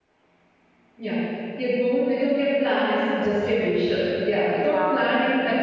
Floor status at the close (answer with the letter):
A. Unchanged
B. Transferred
A